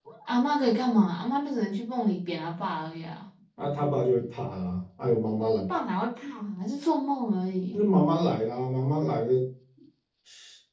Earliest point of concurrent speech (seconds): none

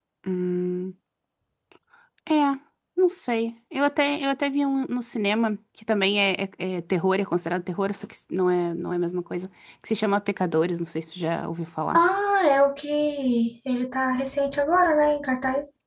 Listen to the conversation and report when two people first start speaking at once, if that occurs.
none

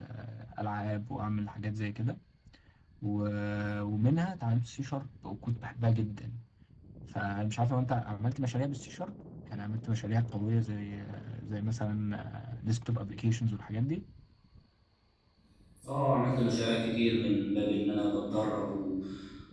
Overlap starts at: none

